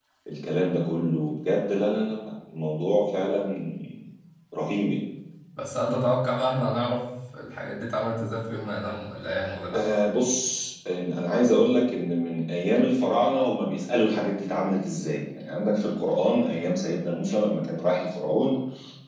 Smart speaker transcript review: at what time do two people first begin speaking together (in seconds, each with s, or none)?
none